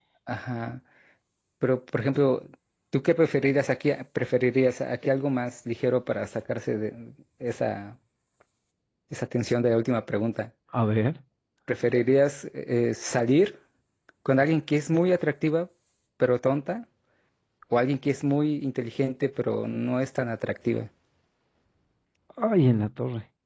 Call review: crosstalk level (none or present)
none